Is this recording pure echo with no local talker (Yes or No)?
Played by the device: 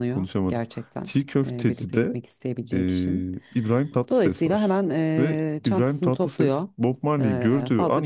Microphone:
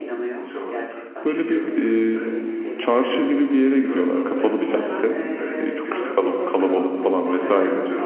No